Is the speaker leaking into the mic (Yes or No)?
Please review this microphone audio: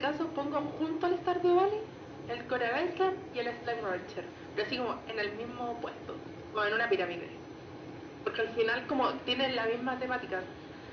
Yes